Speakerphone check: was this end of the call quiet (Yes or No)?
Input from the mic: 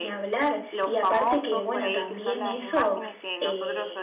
No